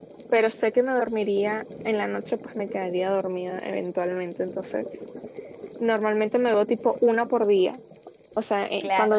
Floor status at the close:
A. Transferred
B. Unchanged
B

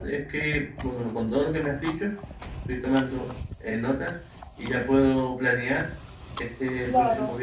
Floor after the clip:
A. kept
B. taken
A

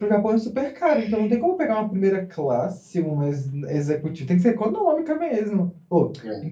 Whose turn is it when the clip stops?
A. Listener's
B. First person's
B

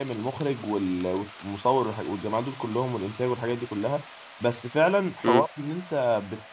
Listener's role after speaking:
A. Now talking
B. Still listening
B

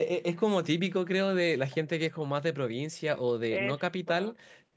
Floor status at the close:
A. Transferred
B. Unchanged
B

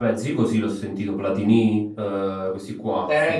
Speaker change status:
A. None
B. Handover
B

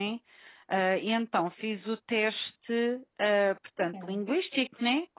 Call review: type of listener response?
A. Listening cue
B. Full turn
A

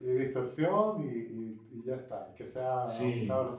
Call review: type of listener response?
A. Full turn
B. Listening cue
A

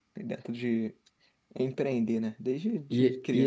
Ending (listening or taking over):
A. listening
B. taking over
B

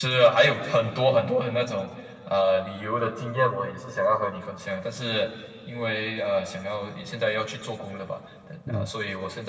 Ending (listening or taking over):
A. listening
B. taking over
A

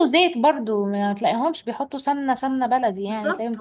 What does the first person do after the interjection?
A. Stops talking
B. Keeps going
A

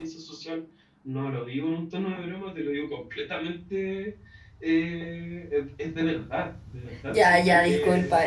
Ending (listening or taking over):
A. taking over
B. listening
A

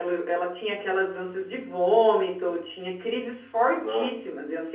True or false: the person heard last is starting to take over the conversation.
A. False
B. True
A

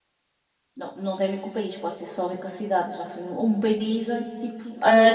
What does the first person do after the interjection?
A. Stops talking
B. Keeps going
A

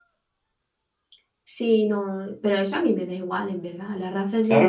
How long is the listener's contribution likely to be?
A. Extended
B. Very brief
A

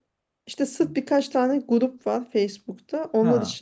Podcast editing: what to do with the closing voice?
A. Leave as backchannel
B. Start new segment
A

